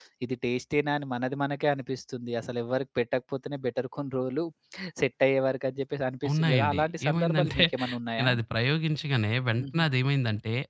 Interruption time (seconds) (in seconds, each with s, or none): 6.2 s